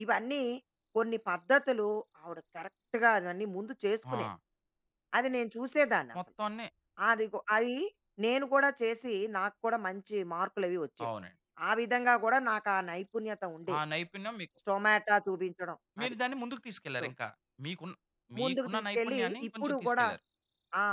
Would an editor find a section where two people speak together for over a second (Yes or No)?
Yes